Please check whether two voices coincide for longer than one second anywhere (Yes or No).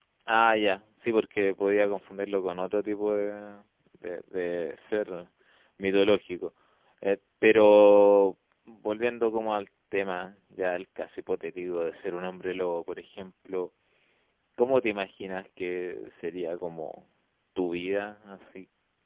No